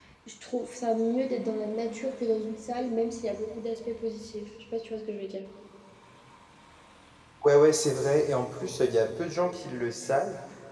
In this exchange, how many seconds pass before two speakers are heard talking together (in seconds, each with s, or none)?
none